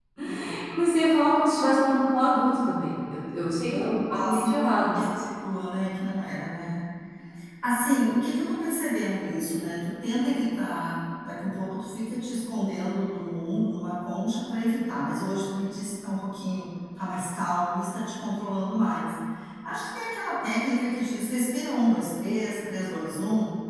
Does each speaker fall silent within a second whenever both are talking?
No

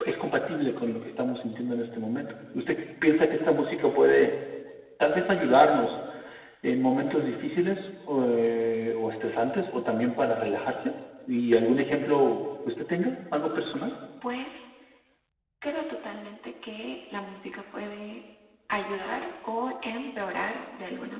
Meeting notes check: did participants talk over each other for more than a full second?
No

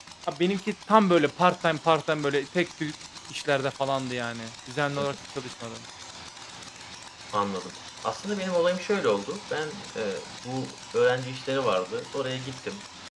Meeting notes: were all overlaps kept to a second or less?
Yes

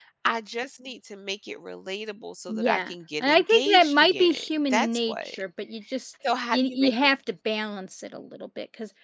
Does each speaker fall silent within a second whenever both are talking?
No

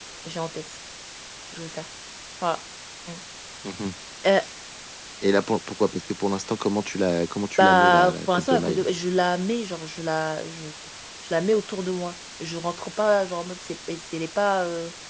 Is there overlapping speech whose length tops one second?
Yes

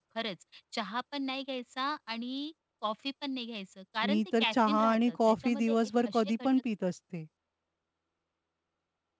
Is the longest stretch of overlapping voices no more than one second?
No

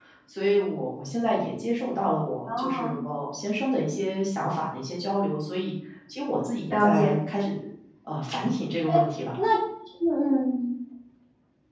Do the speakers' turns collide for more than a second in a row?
No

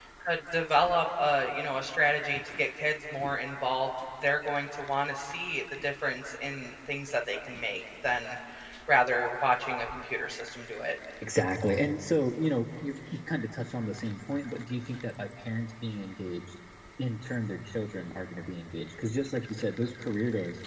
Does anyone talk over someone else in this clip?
No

